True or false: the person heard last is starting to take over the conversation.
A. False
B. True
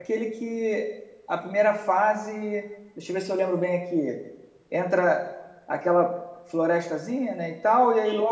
A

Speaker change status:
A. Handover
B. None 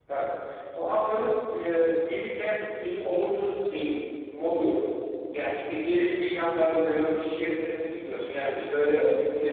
B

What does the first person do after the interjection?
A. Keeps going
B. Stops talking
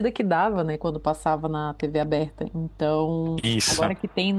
A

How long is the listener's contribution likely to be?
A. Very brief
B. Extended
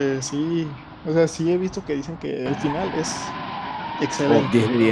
B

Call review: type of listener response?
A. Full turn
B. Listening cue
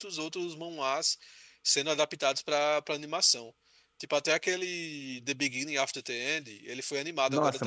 A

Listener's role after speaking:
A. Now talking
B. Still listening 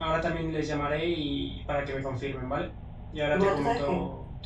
A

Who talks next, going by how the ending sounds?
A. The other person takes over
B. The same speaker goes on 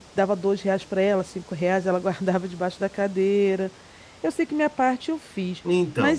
A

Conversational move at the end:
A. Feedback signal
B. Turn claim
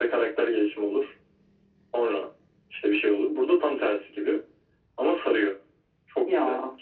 B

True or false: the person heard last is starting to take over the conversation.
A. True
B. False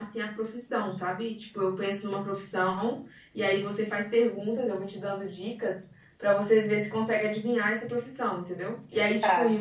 B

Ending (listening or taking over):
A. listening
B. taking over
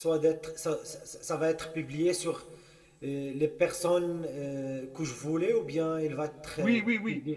B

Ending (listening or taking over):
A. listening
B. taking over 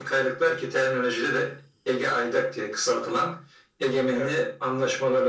A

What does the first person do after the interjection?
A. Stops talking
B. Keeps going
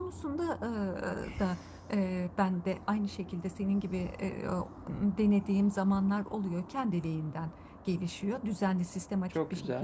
B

